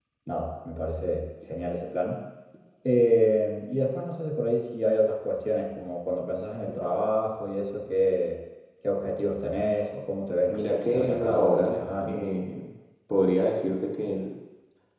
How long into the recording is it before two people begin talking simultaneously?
10 s

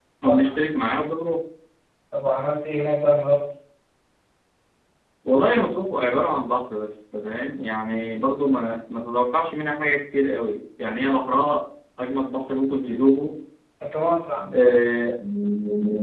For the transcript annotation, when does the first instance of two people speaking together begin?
none

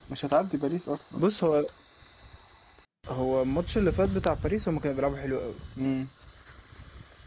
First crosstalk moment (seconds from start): none

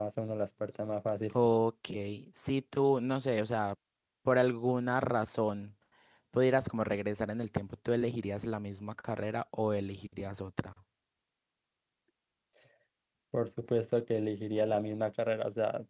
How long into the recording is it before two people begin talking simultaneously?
none

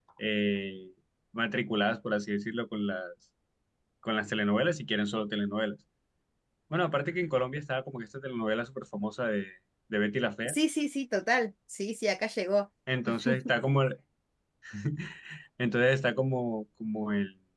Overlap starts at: none

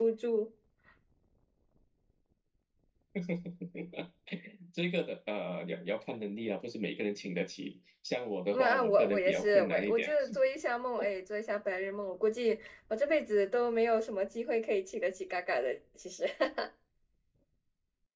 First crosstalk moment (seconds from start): 9 s

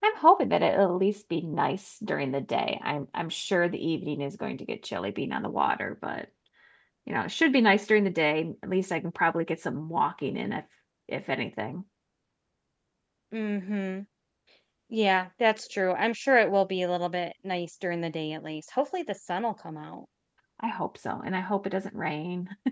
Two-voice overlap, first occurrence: none

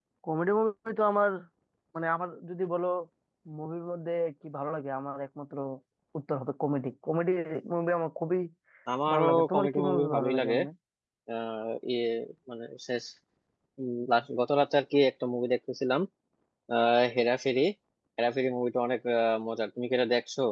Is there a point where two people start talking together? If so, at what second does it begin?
9 s

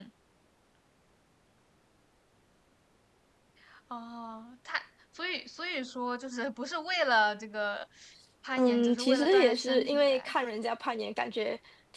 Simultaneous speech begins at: 9 s

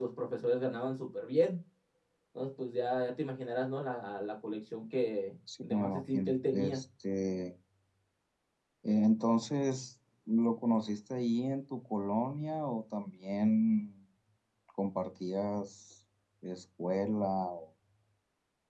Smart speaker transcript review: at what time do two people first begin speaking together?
5 s

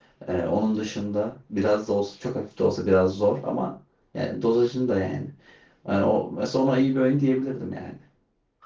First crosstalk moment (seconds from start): none

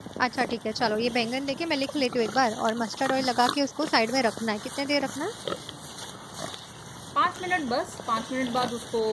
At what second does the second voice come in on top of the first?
none

